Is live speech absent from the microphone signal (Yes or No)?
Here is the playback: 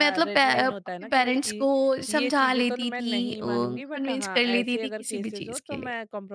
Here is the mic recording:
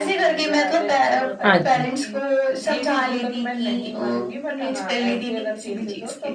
No